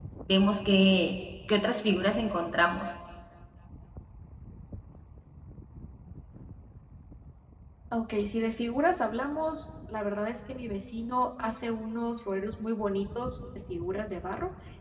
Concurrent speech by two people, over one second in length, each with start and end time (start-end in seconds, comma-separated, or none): none